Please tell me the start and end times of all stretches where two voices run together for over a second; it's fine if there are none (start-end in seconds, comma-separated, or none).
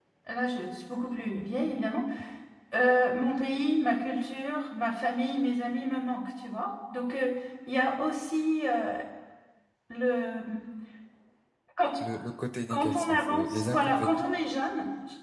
12.7-14.2